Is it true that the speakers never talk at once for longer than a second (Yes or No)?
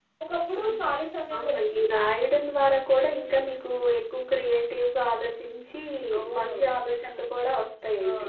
Yes